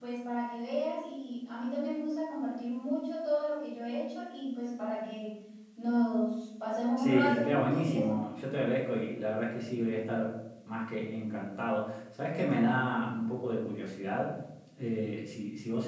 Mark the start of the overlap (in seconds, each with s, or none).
7.0 s